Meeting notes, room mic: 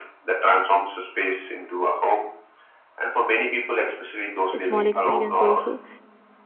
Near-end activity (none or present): present